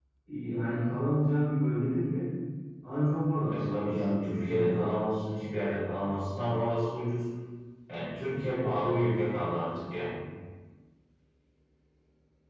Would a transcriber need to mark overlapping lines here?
Yes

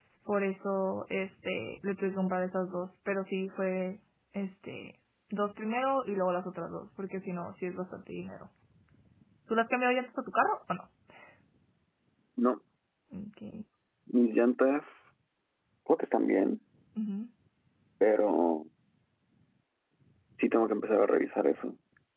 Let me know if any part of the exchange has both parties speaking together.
No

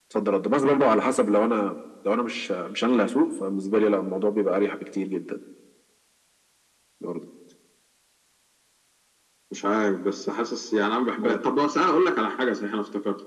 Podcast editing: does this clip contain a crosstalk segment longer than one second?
No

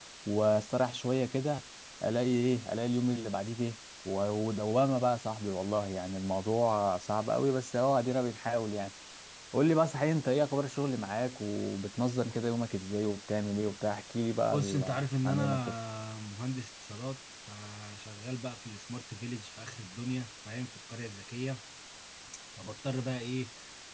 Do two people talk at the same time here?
Yes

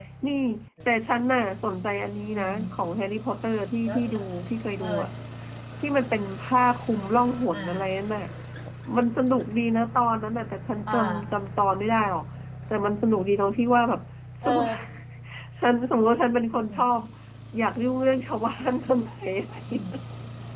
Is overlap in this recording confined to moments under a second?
Yes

